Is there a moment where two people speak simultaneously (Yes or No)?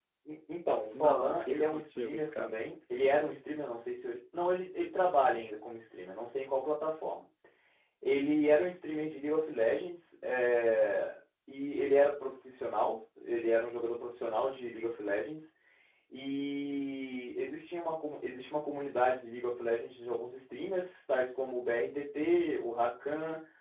Yes